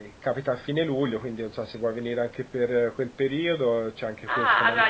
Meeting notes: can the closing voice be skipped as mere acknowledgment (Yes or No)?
No